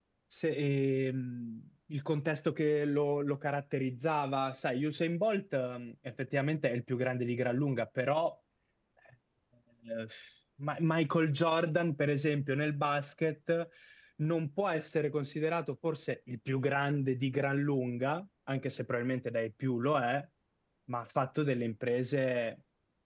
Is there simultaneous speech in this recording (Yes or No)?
No